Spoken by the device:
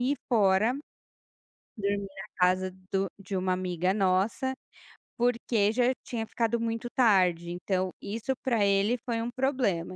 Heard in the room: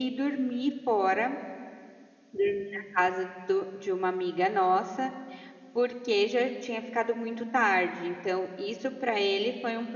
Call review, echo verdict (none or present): present